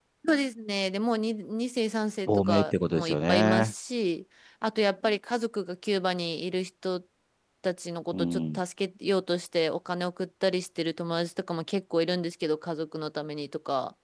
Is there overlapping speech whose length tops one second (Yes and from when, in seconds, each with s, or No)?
Yes, from 2.3 s